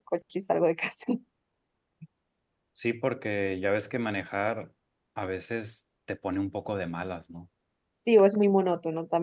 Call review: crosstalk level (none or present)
none